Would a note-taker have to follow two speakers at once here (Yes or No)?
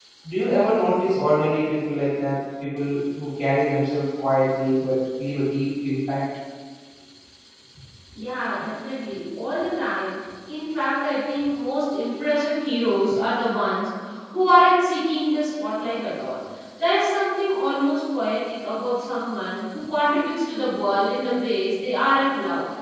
No